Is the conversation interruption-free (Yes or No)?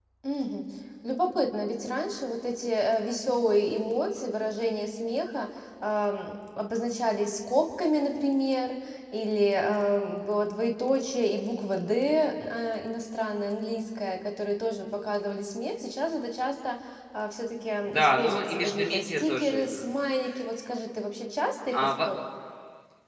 No